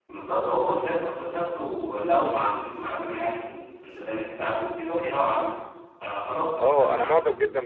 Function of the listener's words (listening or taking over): taking over